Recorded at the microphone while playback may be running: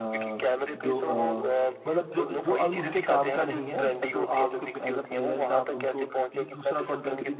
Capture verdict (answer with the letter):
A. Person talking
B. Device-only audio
A